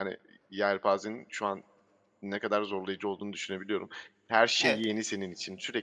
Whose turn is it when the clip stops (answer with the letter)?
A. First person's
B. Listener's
A